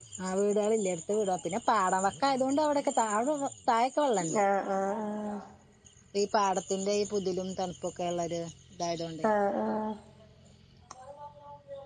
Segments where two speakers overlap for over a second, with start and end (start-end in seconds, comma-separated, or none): none